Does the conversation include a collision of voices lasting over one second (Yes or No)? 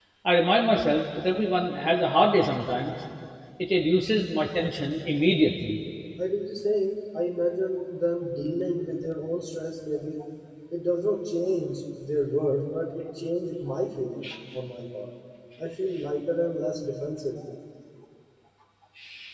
No